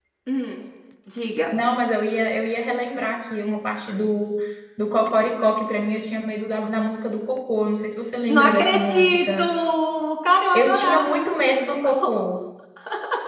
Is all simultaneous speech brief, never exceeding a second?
No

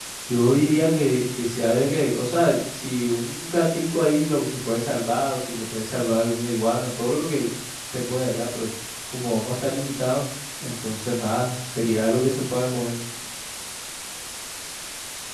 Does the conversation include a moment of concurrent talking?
No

